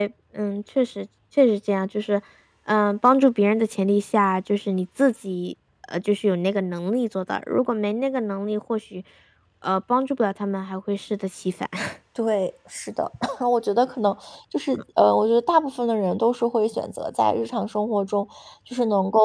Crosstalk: none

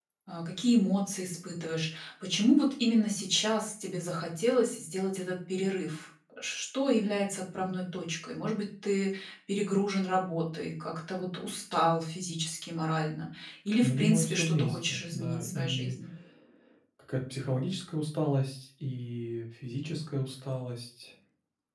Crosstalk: present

